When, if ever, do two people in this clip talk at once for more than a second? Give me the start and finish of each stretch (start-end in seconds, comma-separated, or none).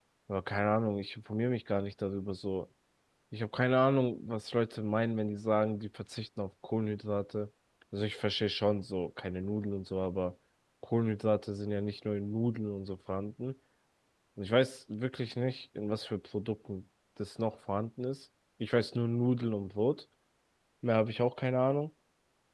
none